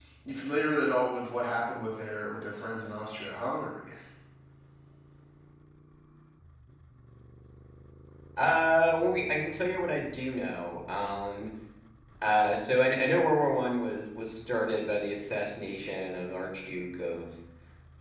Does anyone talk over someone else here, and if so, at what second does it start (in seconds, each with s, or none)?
none